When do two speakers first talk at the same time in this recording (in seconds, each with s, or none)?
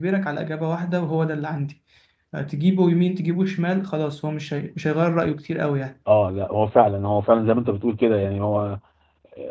none